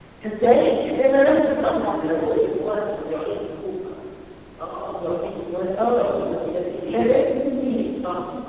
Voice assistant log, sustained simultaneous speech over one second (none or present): none